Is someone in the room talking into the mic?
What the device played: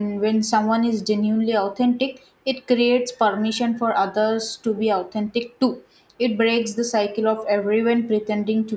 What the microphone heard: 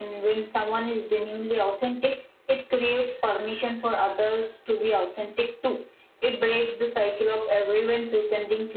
No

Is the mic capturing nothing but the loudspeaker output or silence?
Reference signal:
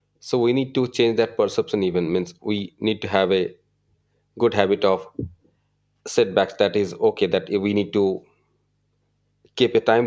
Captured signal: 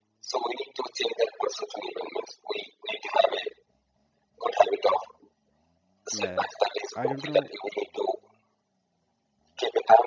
No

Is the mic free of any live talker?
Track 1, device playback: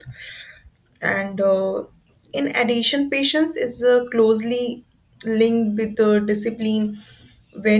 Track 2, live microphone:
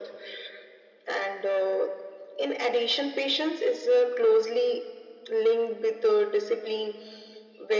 Yes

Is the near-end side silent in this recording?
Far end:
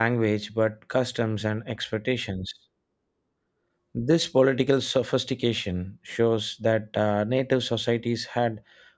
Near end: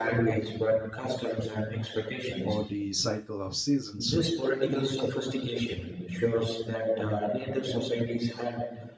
No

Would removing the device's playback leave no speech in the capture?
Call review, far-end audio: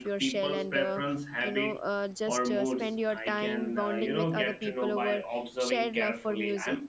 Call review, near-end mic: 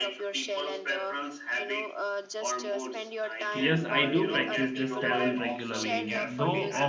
No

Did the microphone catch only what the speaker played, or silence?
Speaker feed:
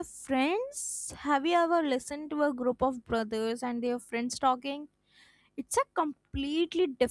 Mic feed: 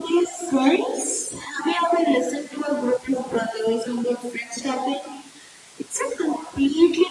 Yes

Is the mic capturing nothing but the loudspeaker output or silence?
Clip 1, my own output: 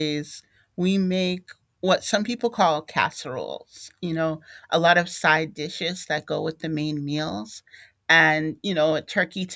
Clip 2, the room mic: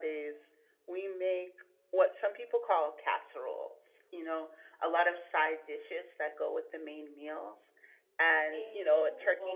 No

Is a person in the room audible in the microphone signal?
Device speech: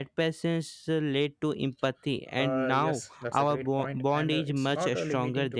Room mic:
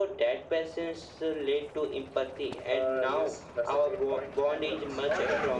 No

